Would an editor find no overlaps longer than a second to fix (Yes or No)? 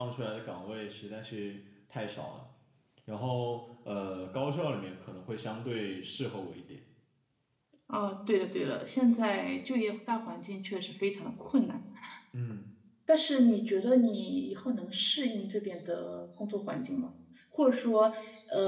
Yes